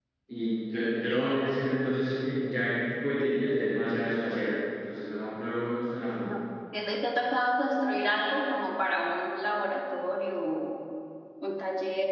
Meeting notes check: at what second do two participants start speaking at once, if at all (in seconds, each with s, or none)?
none